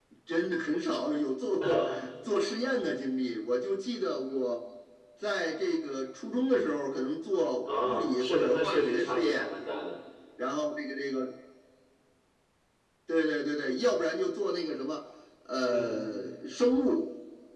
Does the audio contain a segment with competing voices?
Yes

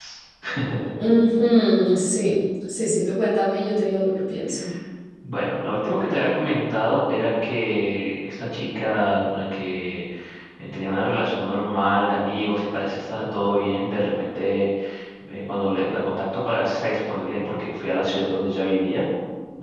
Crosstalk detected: No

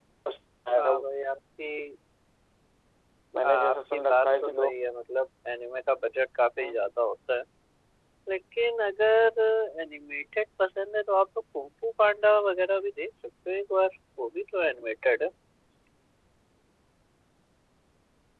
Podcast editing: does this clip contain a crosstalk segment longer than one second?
Yes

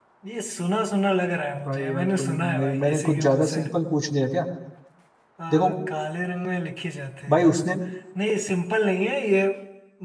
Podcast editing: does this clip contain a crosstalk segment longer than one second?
Yes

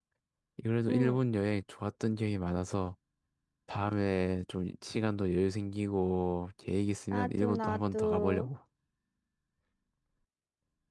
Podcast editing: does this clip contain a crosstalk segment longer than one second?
Yes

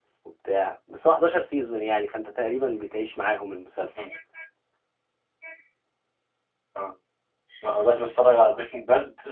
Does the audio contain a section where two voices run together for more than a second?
No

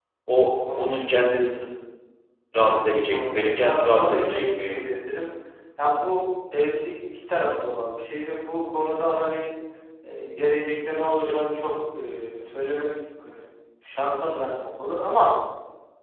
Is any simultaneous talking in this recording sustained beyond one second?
Yes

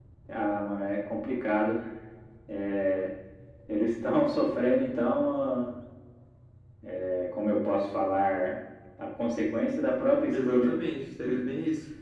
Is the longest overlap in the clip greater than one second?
No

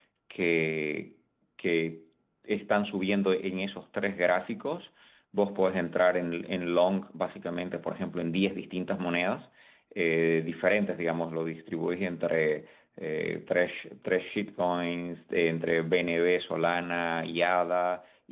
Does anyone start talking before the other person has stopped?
No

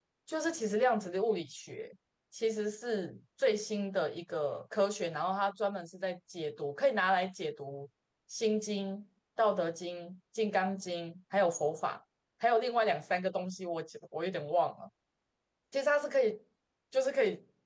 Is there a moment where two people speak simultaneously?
No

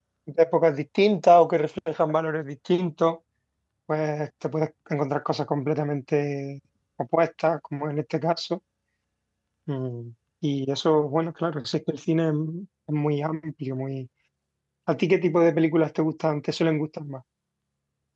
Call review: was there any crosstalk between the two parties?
No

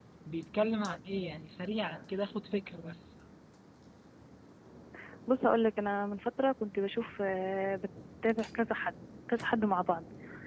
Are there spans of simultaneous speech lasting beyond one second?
No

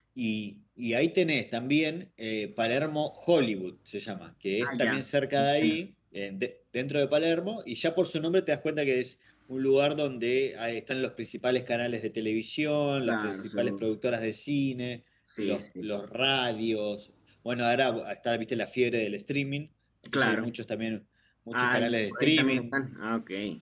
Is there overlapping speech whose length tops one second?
Yes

